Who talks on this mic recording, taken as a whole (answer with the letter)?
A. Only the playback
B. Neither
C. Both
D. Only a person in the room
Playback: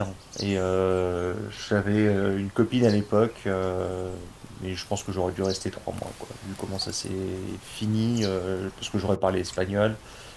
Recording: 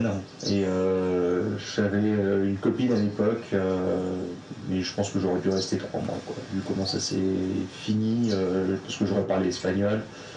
A